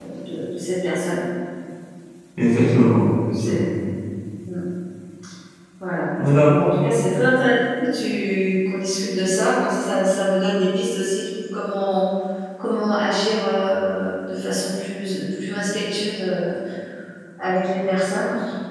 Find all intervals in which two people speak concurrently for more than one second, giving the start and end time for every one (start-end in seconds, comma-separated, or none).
2.4-3.6